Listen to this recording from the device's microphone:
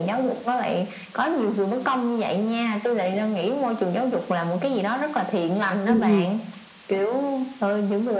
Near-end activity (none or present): present